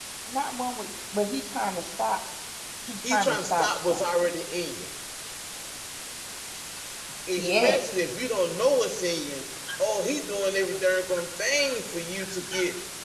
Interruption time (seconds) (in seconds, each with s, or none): 3.1 s